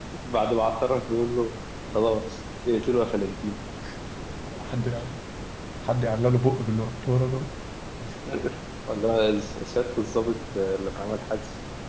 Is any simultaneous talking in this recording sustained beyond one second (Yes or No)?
No